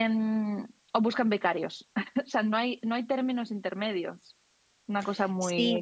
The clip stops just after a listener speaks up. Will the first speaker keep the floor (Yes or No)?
No